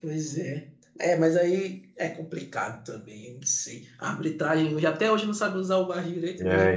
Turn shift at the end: No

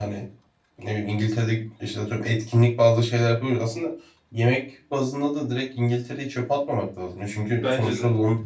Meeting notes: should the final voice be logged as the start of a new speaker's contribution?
No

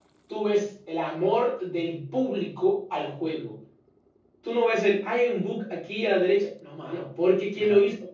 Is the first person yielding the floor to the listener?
No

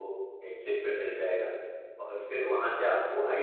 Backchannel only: Yes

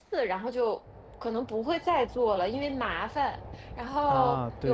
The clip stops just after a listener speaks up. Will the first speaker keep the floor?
Yes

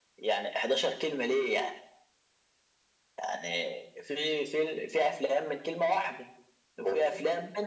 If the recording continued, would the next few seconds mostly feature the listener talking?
No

